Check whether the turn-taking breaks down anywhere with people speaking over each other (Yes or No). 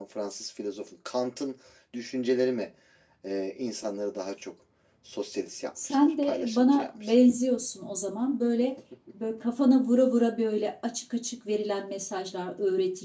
Yes